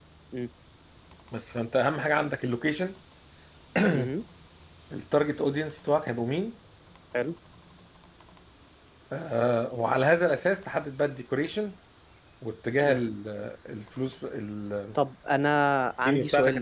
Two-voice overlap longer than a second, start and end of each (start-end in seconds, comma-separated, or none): none